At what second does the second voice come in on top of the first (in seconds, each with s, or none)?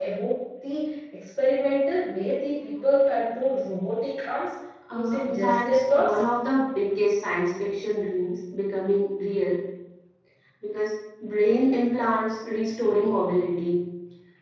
4.9 s